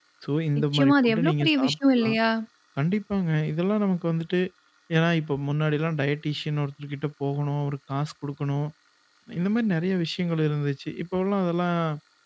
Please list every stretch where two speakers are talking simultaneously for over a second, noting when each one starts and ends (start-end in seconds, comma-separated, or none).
0.6-2.2